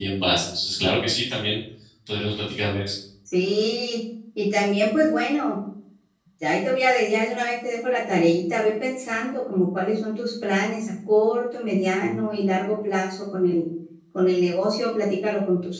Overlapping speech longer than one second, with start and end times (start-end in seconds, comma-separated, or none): none